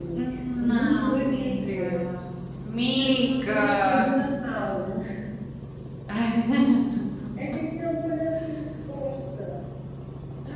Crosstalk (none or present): present